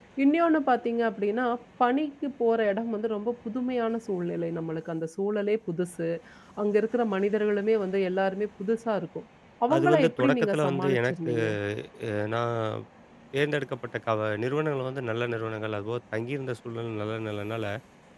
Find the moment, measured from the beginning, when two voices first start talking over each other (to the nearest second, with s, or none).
10 s